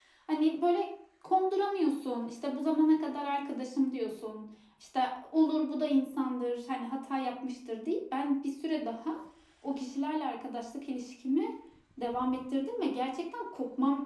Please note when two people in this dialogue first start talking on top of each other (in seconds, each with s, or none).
none